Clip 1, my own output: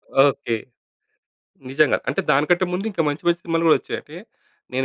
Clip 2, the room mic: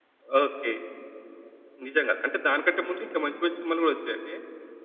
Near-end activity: none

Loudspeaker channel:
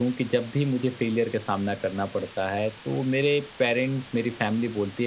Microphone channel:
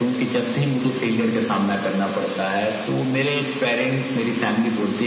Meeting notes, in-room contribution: none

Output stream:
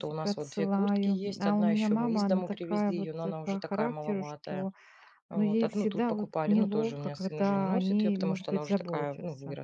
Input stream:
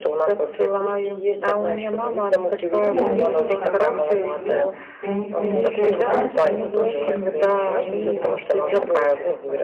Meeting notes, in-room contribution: present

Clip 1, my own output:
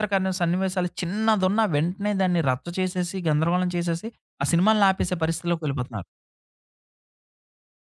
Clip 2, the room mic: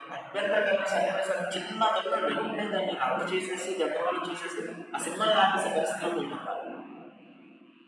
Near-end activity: none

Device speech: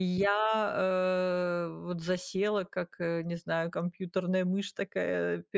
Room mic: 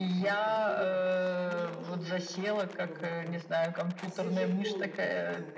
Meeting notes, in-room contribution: present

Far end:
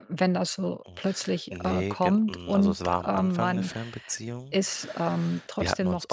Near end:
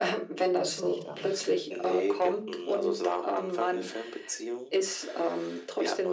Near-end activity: present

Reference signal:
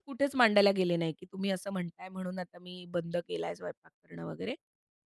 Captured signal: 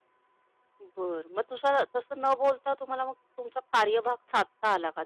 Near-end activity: present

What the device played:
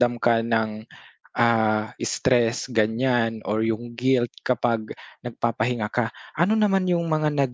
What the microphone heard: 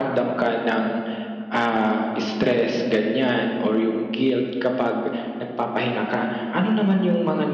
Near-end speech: none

